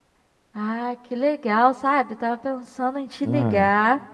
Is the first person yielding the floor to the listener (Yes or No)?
No